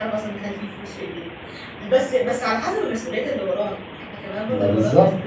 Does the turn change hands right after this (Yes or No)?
No